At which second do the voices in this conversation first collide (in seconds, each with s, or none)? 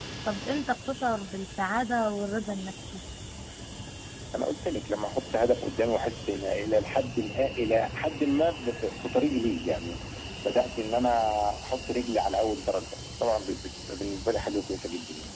none